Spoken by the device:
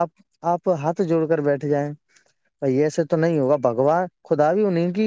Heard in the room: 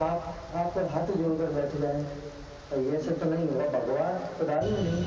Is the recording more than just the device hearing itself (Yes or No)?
No